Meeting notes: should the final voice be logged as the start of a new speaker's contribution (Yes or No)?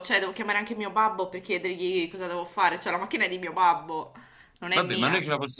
Yes